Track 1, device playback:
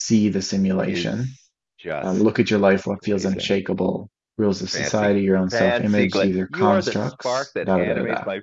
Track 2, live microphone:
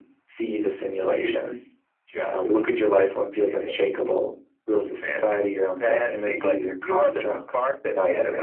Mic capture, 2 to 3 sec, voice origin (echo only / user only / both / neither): echo only